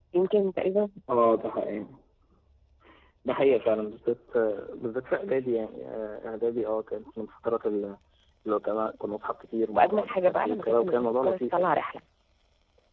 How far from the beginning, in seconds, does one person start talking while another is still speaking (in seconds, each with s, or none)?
9.7 s